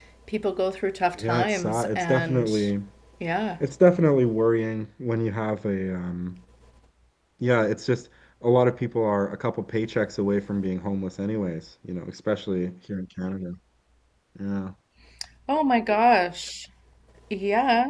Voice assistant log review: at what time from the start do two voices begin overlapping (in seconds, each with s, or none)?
1.2 s